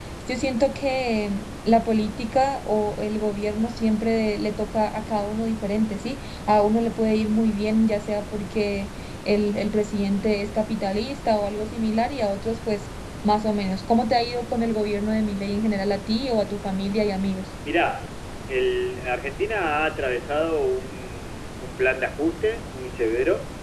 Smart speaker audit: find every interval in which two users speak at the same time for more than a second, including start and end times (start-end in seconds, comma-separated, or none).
none